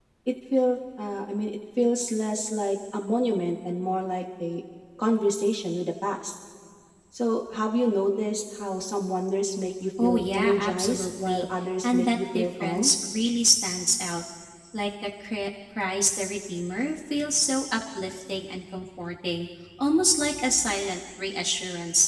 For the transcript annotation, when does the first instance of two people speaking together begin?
10.0 s

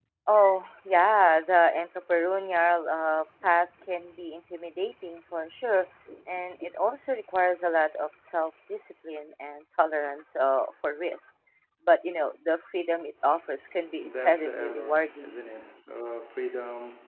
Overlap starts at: 13.8 s

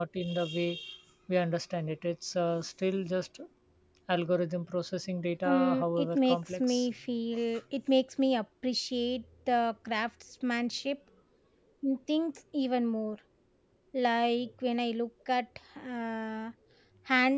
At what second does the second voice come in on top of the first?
5.5 s

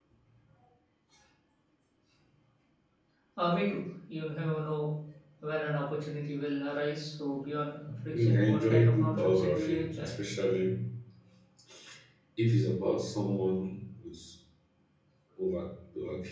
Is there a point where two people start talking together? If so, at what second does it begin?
7.9 s

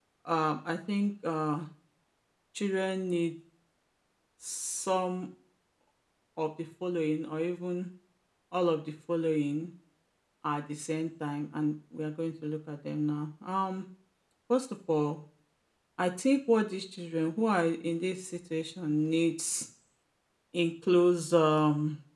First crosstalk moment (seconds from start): none

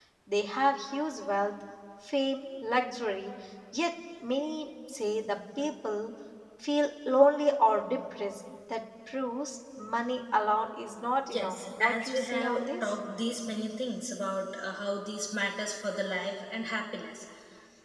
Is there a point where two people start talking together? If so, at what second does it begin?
11.3 s

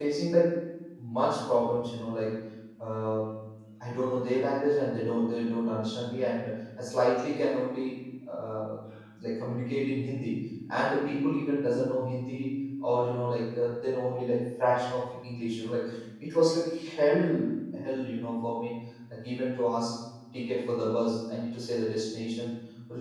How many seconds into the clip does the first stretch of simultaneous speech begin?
none

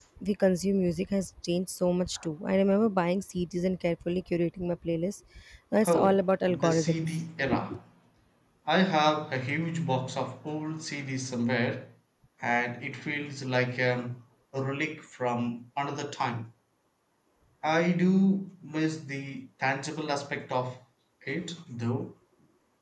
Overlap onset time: 5.9 s

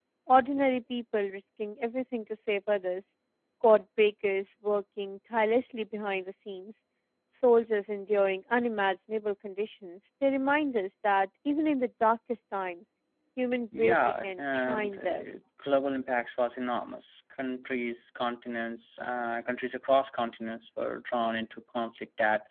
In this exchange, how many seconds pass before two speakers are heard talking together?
13.7 s

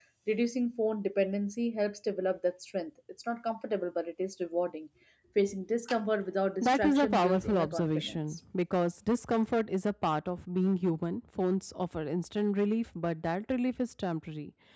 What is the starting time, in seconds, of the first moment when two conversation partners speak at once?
6.6 s

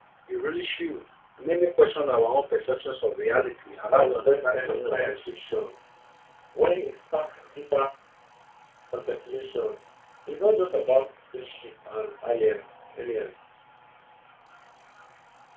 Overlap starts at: 3.9 s

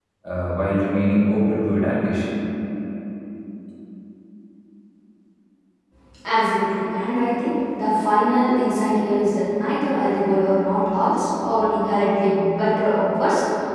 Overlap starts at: none

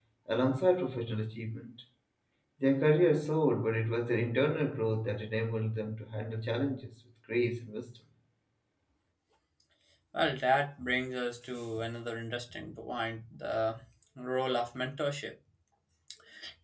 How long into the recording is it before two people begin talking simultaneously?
none

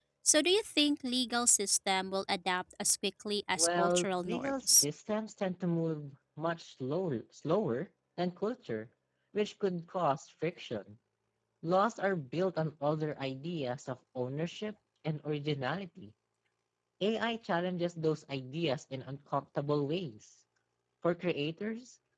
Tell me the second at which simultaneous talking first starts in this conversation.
3.6 s

